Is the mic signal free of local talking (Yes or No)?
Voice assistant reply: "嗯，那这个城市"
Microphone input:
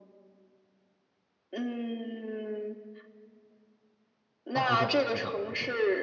No